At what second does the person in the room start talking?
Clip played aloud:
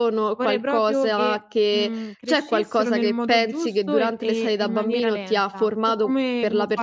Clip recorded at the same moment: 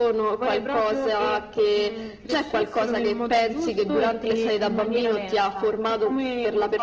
none

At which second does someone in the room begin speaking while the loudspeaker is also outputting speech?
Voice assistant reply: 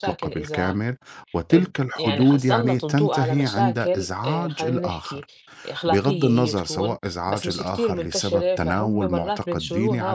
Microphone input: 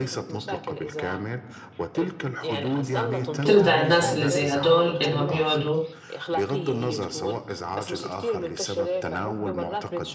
3.4 s

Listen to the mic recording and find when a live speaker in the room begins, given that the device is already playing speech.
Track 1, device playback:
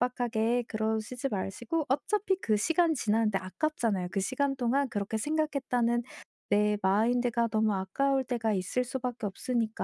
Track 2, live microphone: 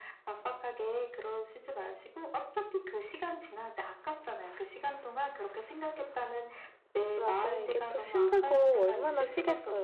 7.2 s

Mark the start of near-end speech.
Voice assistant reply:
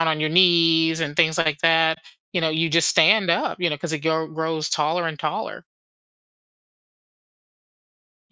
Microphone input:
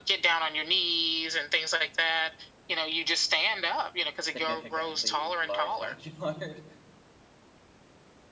4.2 s

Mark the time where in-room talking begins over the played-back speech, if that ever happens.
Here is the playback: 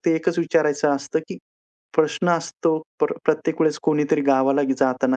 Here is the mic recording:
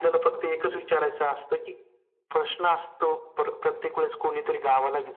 none

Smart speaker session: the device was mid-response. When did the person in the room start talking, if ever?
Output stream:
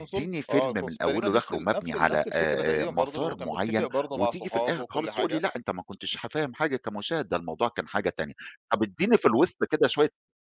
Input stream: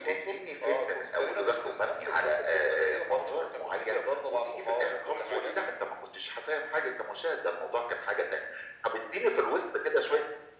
none

